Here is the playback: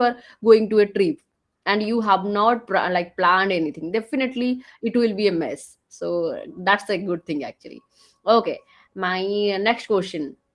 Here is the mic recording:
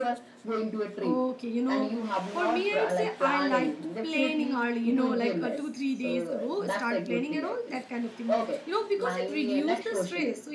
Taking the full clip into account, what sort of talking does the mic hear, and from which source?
both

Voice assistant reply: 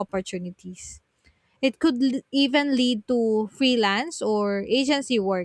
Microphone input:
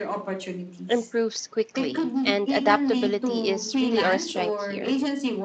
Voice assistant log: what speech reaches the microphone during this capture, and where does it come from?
both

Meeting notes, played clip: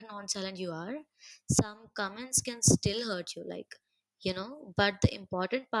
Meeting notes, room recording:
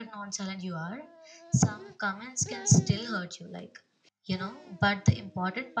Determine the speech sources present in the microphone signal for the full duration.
echo only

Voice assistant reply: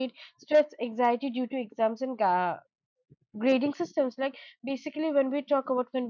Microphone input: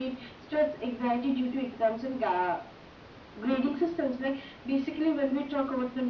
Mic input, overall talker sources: echo only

